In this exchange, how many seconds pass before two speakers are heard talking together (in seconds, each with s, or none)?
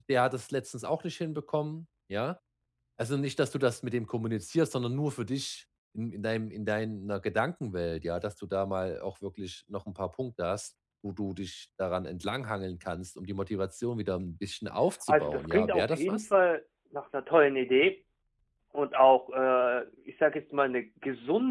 15.1 s